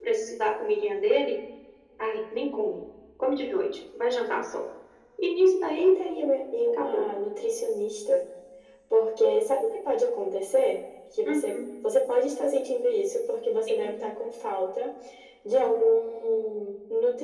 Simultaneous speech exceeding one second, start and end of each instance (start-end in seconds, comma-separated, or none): none